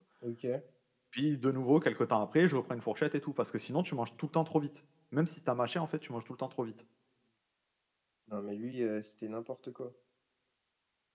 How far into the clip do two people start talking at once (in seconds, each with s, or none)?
none